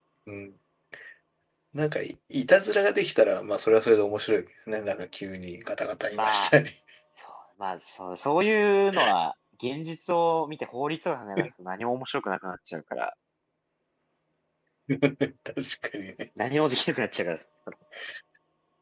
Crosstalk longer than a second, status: none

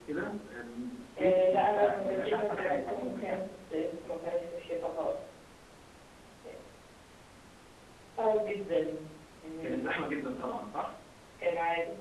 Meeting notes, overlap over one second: present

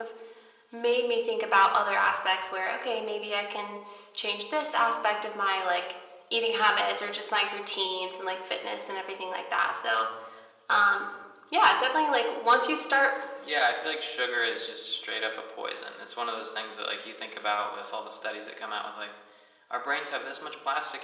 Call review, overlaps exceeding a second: none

